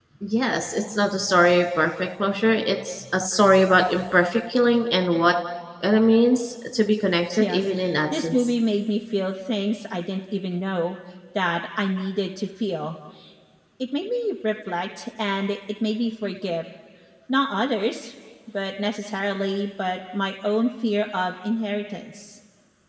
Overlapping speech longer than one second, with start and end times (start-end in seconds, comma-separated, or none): none